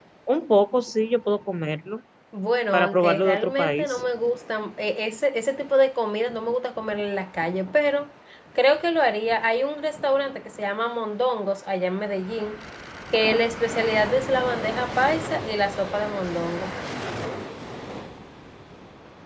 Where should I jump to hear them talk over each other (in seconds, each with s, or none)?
2.7 s